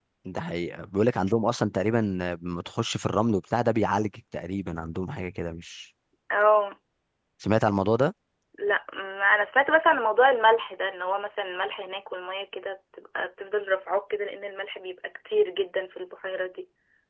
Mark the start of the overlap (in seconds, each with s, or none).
none